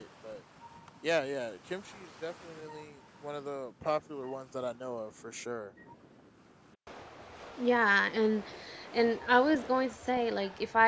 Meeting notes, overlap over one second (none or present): none